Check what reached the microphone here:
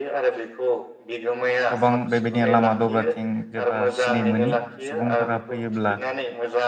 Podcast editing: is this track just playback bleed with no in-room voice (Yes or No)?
No